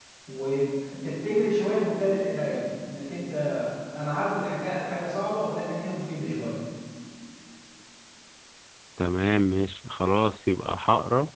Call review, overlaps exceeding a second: none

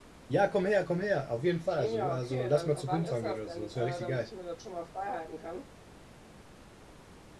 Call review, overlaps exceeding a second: present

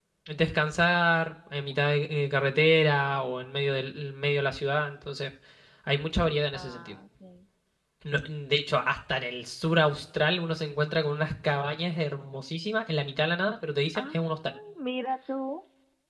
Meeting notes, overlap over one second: none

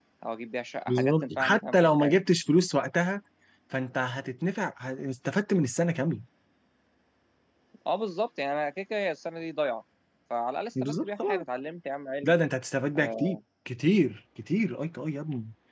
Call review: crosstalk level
present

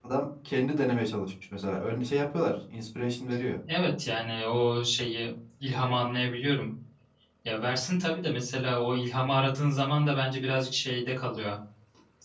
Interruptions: none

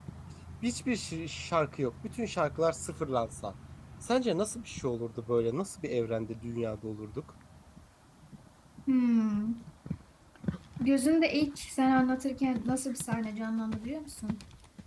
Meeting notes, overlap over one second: none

